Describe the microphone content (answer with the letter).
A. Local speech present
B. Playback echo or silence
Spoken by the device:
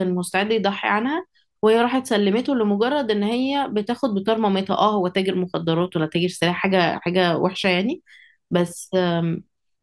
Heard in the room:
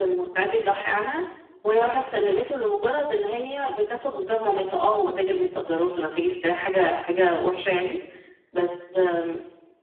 B